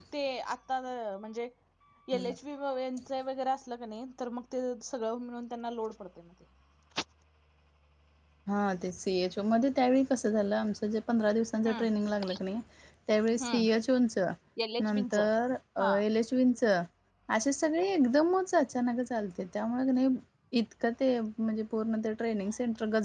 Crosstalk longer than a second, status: none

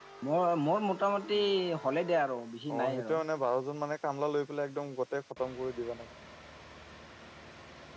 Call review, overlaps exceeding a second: none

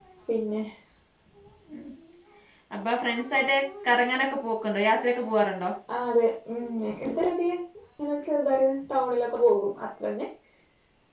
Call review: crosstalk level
none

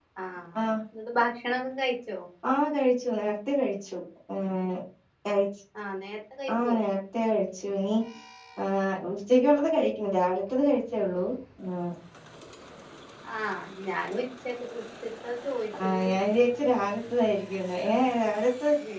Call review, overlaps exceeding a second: none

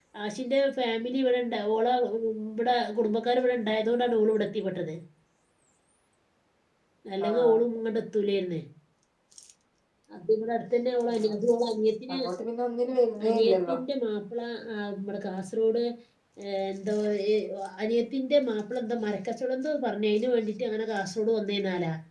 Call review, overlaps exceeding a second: none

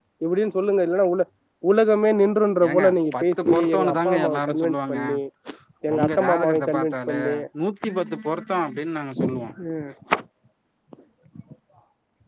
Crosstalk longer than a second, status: present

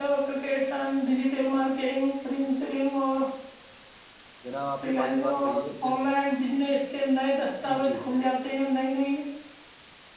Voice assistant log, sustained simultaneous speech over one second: present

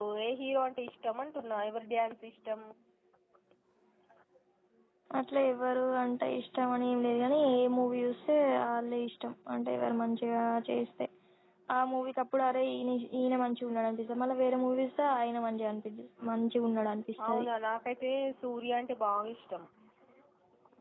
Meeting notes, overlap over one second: none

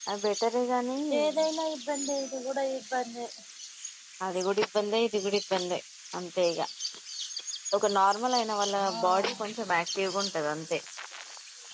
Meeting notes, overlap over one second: none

